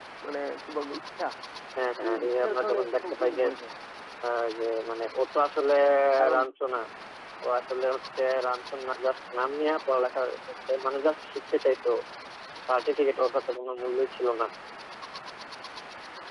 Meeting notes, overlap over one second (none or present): present